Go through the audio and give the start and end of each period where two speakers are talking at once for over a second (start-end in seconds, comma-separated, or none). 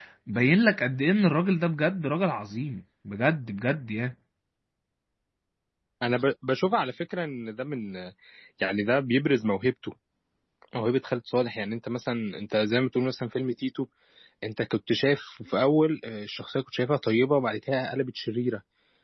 none